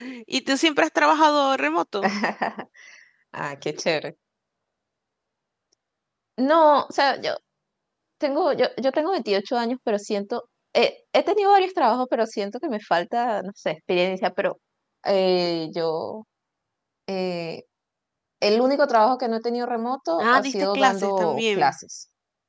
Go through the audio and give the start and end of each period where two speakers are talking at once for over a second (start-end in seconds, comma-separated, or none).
20.2-21.7